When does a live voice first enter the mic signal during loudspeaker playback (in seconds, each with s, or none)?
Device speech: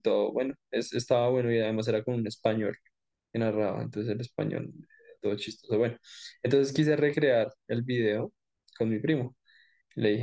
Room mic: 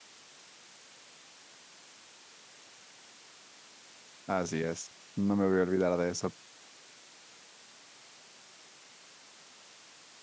4.3 s